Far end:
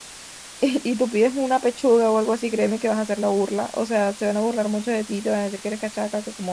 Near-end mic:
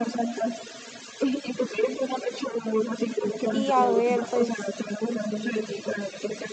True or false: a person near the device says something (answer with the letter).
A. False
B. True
B